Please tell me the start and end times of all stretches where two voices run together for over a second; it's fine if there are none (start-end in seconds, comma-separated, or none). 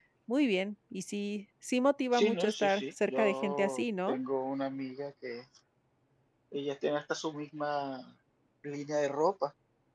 2.2-4.2